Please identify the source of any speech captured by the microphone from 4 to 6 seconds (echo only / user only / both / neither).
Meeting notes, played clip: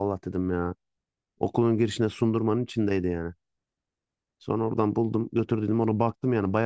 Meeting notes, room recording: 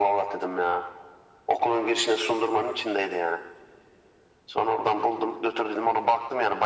echo only